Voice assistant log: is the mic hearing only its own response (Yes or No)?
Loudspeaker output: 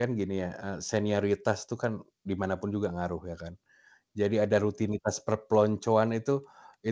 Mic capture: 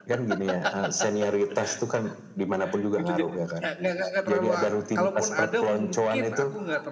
No